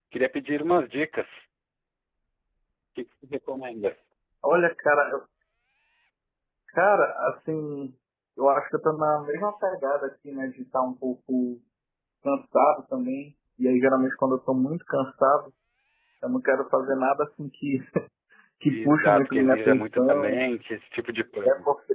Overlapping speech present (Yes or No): Yes